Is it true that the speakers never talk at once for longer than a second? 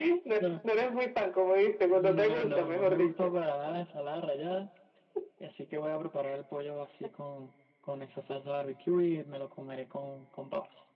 No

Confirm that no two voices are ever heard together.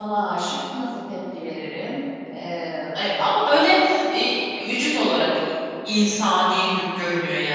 Yes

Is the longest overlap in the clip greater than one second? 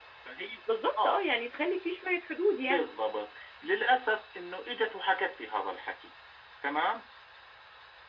No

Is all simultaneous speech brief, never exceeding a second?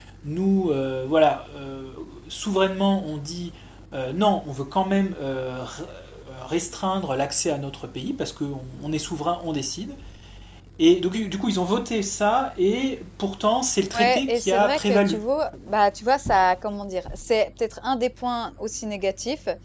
No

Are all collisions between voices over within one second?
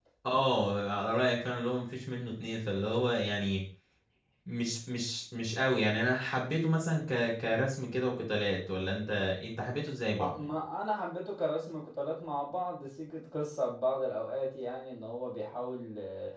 Yes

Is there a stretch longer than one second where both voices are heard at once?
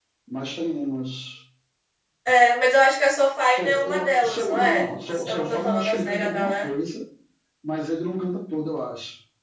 Yes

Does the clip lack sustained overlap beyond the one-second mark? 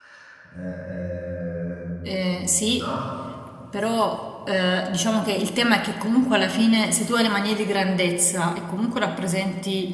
Yes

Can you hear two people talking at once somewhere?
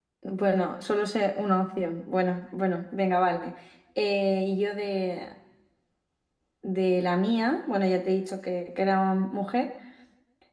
No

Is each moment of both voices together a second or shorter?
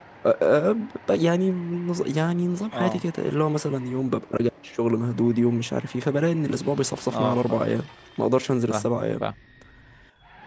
Yes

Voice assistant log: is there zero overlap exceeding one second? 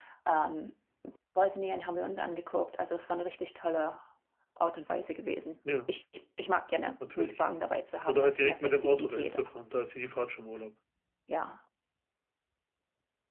No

